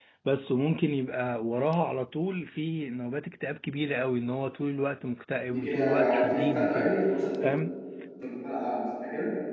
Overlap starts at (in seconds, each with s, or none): 5.5 s